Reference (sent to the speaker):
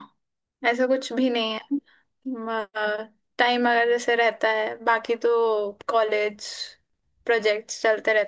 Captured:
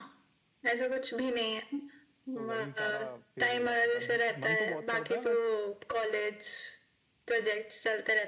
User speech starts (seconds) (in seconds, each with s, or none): 2.3 s